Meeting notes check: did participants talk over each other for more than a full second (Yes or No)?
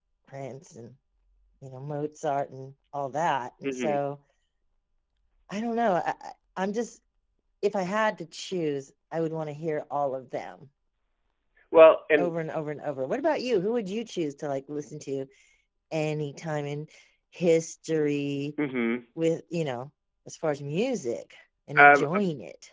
No